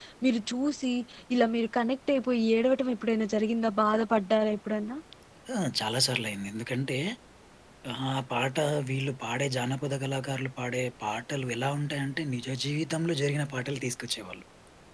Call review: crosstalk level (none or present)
none